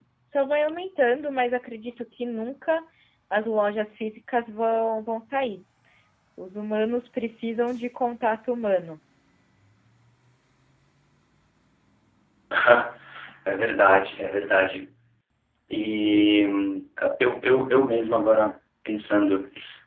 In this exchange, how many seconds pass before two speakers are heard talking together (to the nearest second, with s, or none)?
none